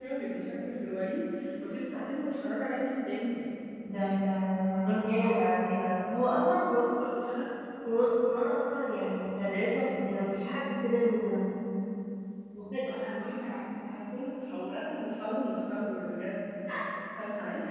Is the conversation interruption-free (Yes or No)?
Yes